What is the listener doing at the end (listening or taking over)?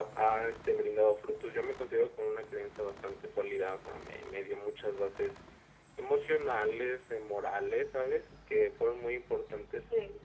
listening